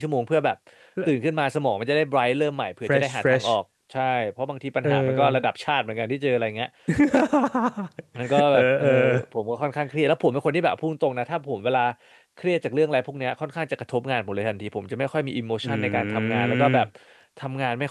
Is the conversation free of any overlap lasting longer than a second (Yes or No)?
No